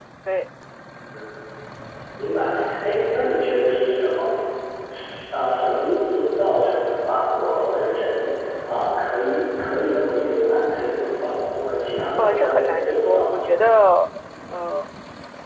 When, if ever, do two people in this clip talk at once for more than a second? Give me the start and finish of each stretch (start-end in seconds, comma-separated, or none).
12.2-13.4